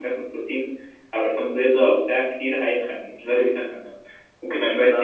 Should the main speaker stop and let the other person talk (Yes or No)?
No